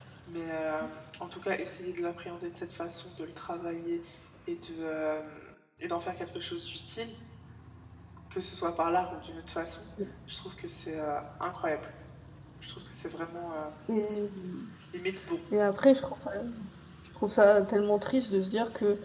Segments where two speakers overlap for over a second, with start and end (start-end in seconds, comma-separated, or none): none